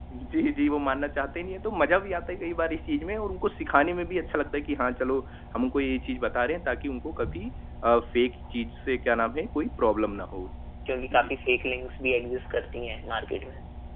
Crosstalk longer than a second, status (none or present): none